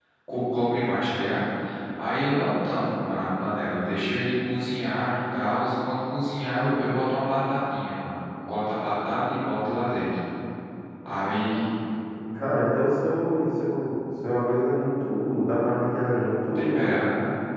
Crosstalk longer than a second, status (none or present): none